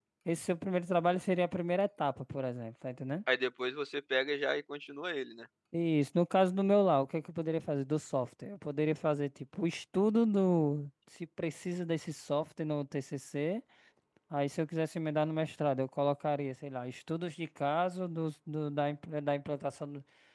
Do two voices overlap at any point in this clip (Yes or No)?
No